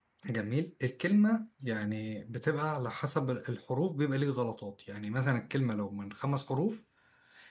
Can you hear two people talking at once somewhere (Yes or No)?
No